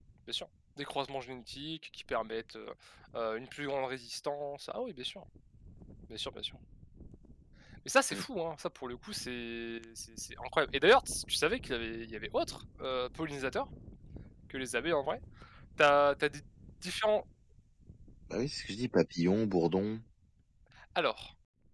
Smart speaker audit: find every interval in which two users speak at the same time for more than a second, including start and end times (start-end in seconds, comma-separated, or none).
none